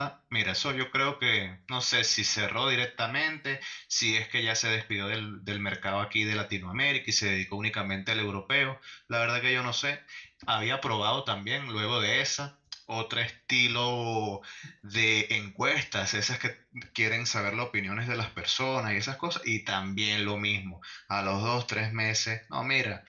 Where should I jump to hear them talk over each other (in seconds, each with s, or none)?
none